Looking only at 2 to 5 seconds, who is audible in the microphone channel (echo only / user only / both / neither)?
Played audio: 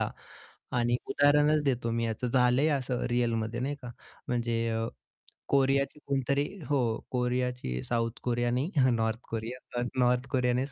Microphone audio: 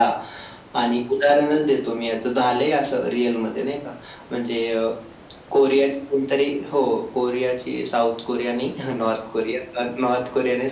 echo only